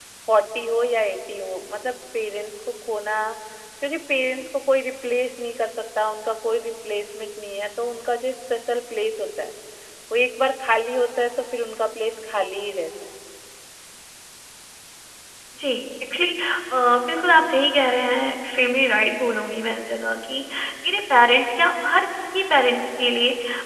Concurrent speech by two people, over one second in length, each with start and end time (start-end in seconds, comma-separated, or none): none